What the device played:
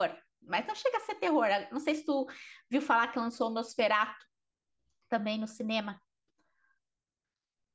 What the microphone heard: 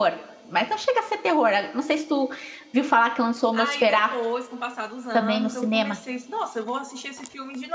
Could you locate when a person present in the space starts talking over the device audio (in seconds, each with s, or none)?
3.5 s